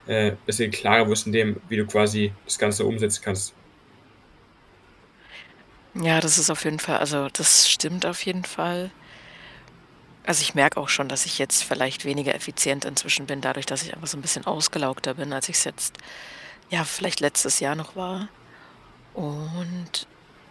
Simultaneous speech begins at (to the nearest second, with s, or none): none